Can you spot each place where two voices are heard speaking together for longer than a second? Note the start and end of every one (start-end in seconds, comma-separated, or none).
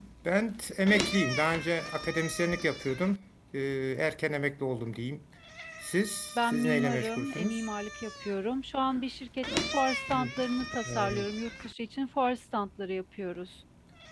6.4-7.6